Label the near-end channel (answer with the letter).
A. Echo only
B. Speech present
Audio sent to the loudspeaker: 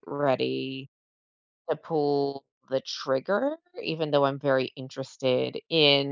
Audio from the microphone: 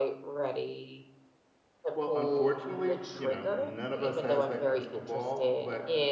B